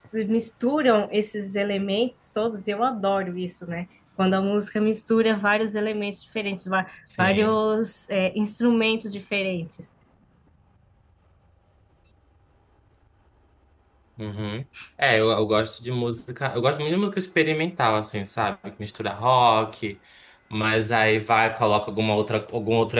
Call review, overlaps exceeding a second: none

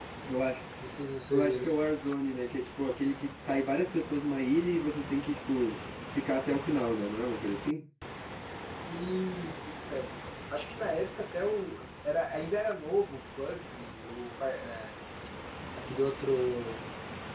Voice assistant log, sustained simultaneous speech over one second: none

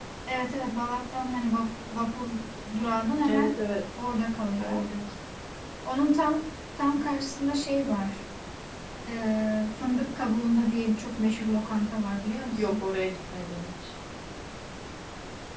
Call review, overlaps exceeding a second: none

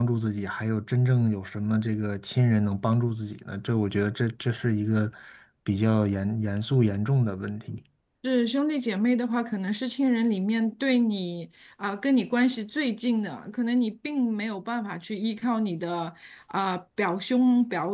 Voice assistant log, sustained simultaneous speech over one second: none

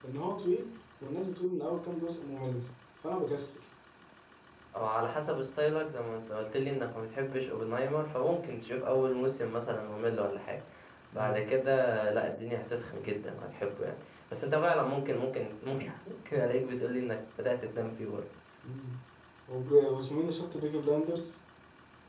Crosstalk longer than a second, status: none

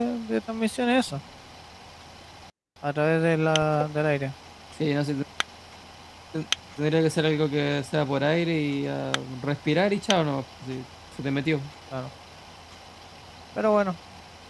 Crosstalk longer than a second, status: none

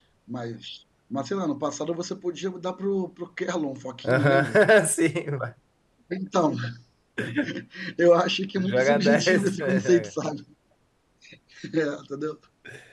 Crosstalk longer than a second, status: present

